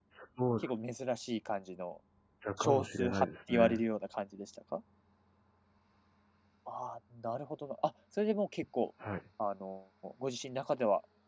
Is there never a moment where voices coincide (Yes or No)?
No